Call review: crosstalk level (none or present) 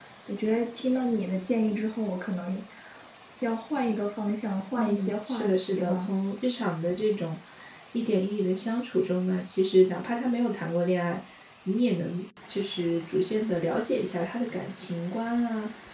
present